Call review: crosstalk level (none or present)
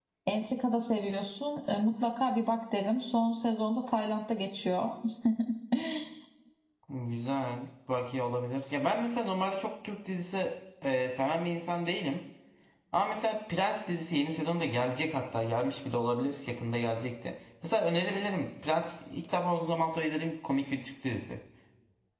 none